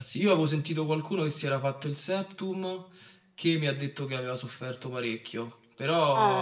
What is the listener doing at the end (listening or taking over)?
listening